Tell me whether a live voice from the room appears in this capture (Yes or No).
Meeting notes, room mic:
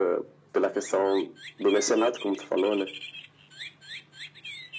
No